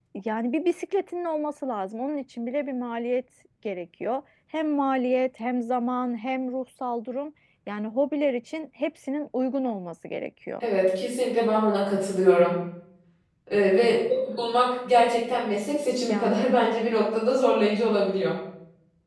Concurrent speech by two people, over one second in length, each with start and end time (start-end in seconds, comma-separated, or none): none